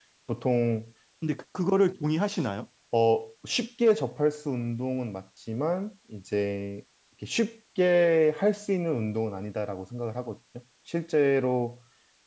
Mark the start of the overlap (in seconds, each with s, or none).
none